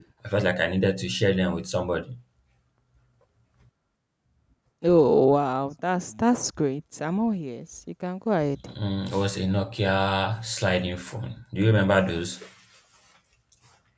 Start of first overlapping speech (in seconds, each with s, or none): none